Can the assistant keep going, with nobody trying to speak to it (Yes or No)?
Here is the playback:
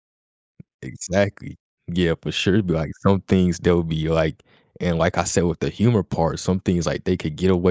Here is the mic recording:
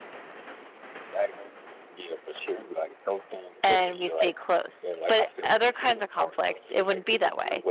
No